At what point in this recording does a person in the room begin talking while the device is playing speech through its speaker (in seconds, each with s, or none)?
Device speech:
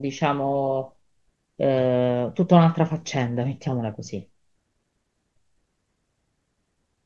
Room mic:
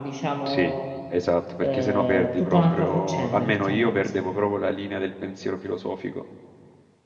0.4 s